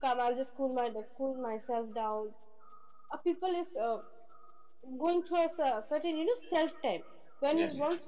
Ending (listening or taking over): listening